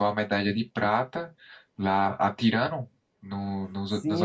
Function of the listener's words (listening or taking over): taking over